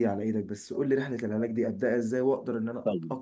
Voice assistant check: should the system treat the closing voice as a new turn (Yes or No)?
Yes